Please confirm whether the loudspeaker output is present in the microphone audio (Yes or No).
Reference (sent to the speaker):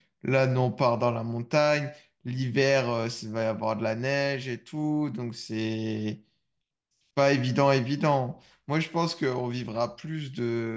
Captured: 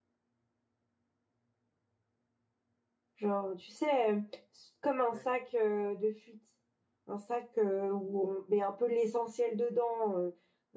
No